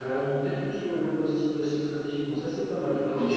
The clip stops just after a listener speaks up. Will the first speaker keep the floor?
No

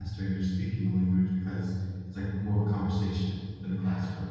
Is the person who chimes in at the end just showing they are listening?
No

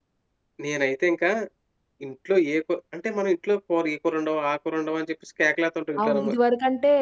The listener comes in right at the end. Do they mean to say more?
Yes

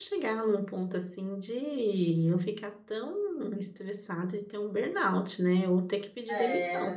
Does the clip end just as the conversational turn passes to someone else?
No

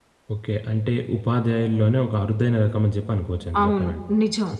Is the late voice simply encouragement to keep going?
No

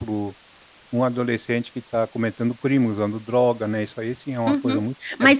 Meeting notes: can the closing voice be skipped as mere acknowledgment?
No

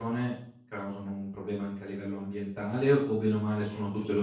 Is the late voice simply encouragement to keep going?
No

